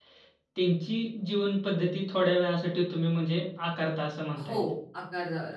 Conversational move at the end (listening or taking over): taking over